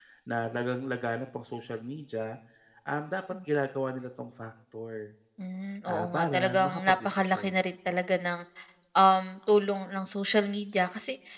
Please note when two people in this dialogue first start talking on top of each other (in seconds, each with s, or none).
5.9 s